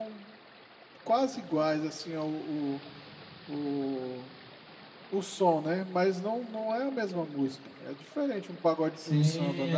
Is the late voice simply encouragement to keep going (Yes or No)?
No